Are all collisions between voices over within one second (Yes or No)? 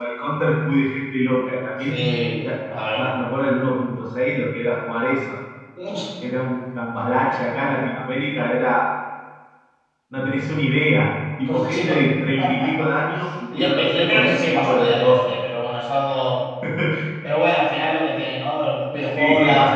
No